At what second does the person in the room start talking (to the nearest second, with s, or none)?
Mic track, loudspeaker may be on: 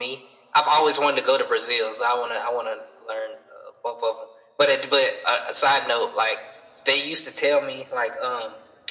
none